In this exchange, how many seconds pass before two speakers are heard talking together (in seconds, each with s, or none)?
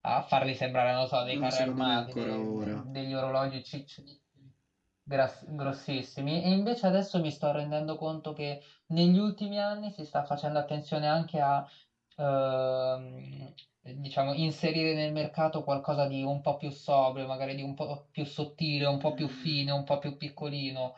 1.2 s